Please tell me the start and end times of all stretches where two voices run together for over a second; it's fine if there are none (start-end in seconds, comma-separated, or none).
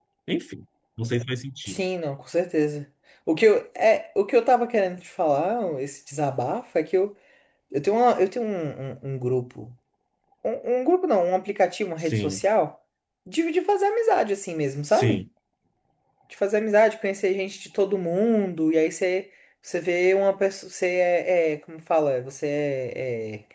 none